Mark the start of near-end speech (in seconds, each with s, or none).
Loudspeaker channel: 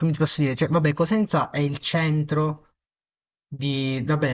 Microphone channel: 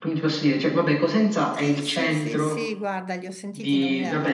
1.5 s